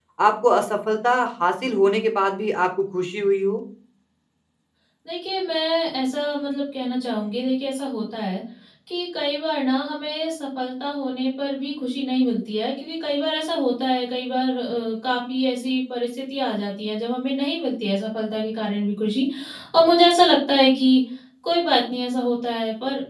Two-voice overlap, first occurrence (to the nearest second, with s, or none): none